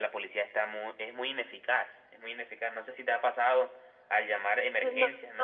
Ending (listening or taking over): taking over